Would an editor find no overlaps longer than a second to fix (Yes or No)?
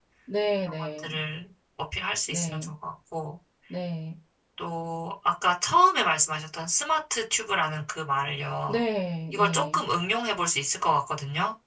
Yes